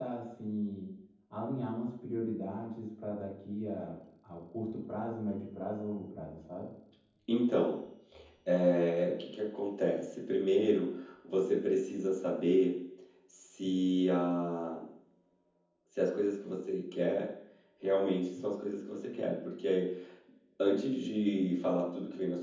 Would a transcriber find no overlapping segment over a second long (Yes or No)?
Yes